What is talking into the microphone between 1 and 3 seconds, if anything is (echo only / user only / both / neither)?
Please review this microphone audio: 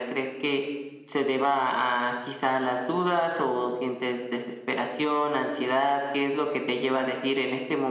echo only